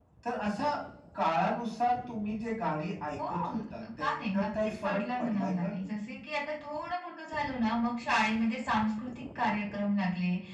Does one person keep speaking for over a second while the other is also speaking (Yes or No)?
Yes